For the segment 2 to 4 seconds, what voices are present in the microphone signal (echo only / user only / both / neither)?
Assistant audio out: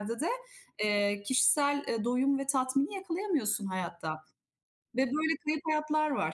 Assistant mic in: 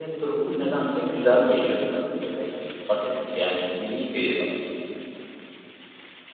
user only